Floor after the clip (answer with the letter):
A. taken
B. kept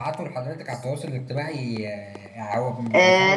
A